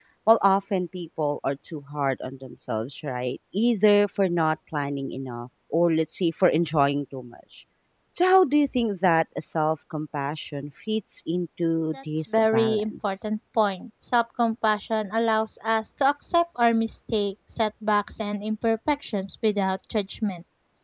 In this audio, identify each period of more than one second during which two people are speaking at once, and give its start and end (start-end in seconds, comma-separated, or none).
11.9-13.2